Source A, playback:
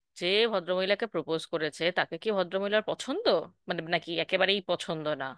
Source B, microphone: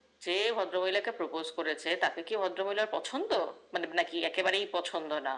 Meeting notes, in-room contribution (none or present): none